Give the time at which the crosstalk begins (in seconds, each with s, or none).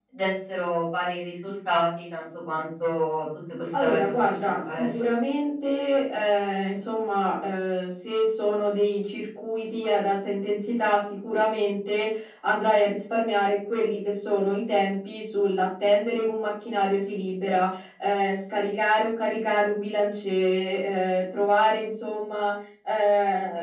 3.7 s